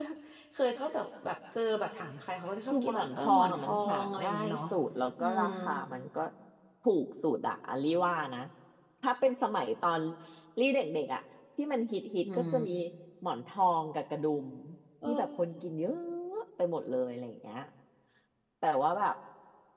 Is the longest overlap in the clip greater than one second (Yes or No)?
Yes